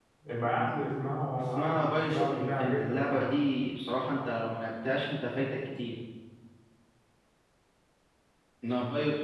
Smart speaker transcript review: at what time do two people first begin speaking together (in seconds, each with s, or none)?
1.5 s